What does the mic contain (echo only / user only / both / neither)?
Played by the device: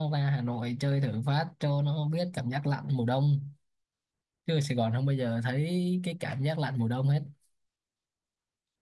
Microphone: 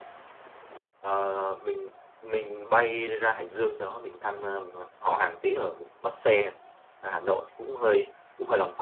user only